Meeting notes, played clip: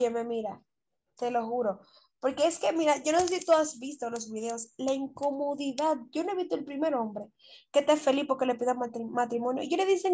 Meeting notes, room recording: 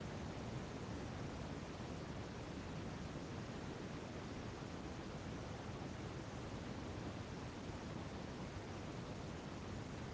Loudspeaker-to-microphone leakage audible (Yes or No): No